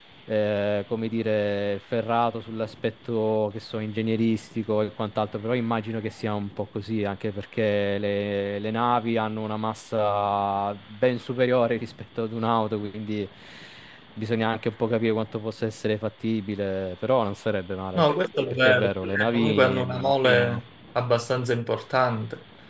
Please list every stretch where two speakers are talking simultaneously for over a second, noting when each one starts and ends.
18.6-20.6

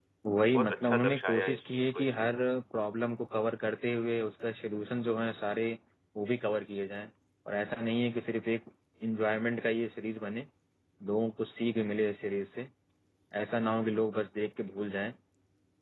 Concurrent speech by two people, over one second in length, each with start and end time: 0.5-2.3

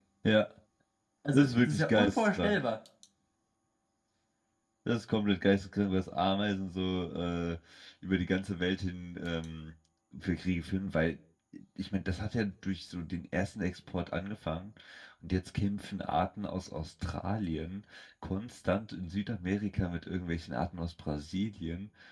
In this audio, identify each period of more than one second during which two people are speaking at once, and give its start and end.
1.3-2.6

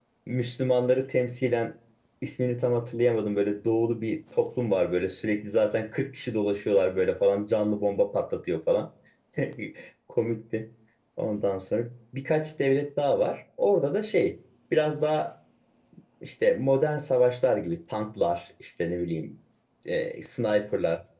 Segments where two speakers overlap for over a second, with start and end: none

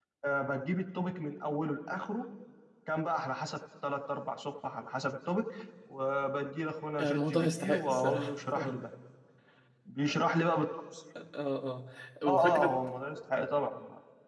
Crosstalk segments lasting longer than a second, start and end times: 7.0-8.8

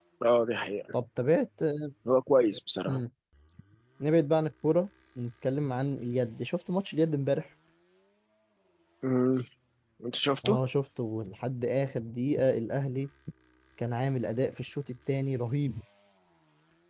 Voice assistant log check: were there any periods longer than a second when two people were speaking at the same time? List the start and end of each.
none

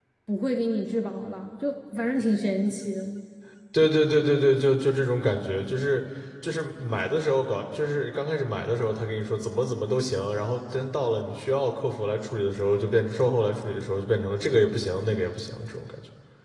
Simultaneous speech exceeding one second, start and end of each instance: none

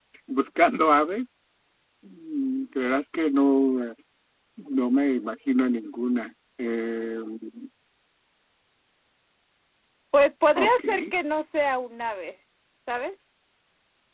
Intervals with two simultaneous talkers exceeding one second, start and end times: none

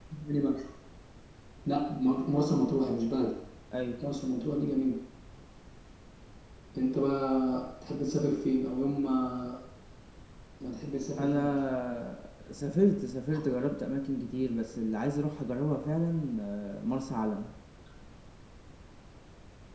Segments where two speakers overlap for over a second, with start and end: none

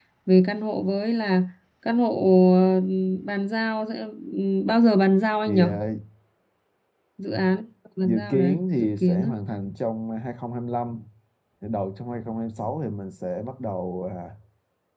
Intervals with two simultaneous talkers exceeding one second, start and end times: 8.0-9.3

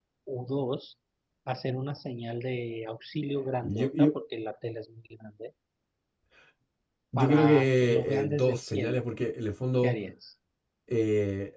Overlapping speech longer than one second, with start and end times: 7.2-9.0

